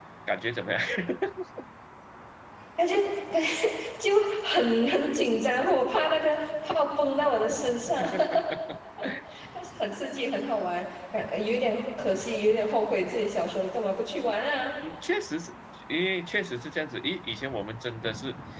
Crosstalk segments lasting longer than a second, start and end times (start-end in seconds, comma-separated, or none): none